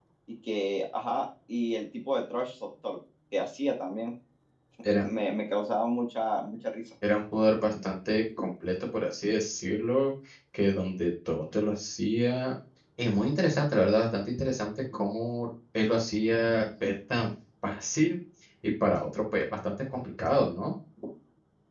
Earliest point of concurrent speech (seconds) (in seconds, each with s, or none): none